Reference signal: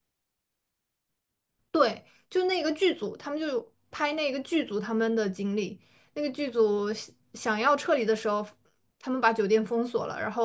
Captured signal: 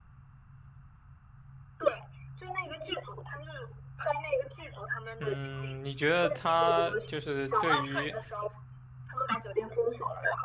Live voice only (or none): 嗯，你觉得他就是对于